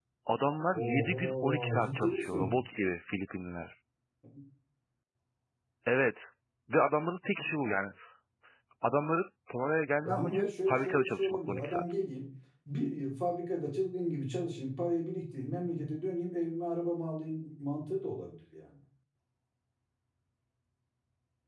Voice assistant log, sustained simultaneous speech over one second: present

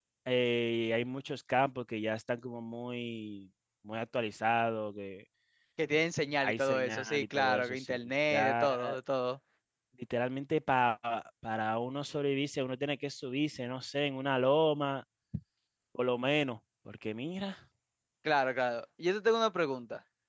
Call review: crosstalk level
present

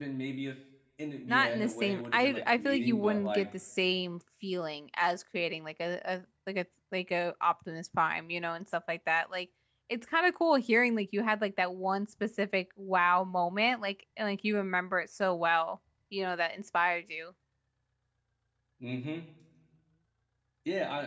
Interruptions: present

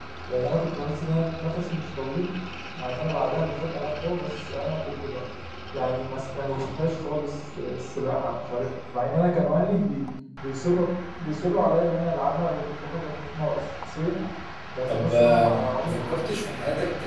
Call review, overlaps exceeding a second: present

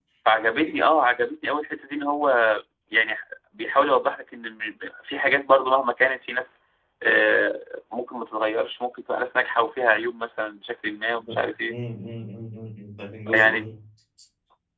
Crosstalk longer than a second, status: none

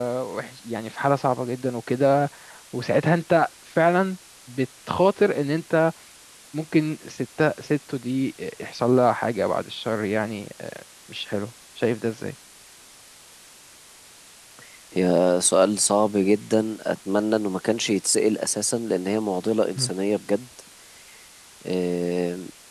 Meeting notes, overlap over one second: none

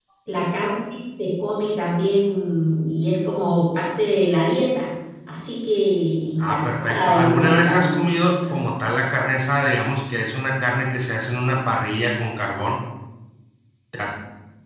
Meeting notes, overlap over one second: present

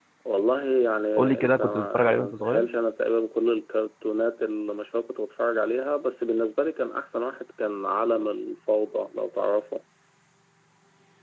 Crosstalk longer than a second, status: present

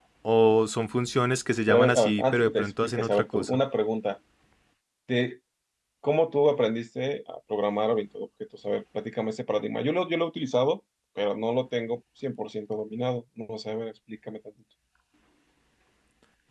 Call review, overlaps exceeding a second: present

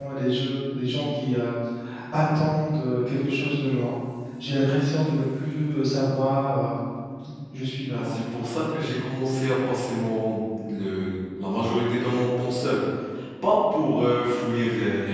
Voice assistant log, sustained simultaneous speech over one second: none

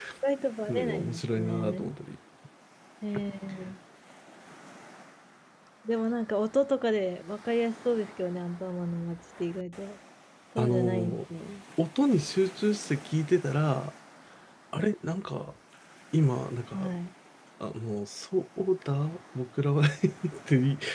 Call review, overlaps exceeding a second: present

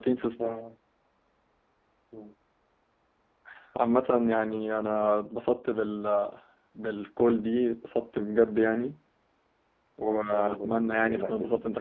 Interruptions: present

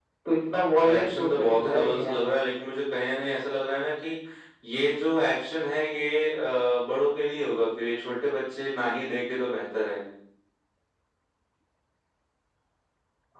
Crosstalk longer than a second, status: present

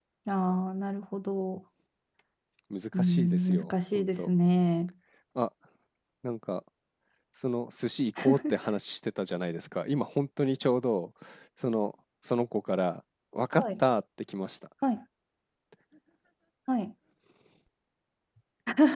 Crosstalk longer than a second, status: present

